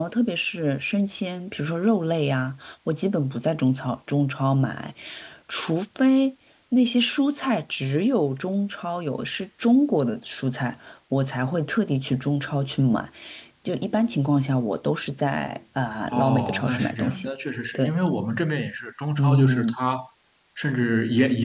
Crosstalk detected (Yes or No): Yes